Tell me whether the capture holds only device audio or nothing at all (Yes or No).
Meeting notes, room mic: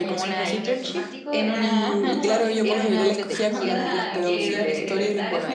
No